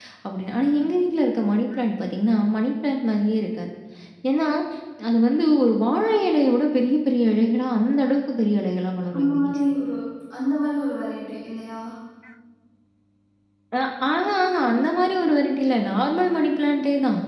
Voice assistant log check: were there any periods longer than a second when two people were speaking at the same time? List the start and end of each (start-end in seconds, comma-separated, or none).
none